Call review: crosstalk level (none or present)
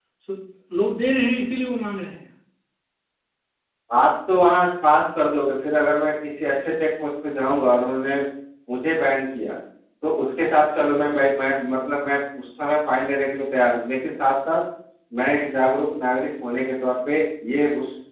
none